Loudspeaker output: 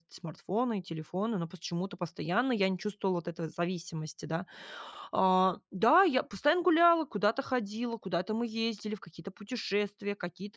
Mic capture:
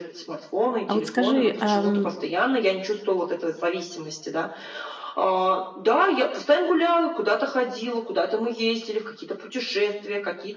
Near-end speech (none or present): present